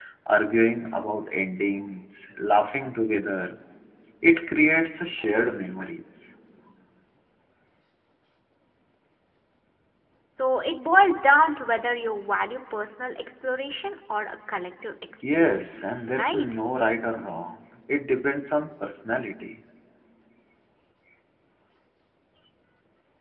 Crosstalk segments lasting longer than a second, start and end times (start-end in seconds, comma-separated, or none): 15.3-16.5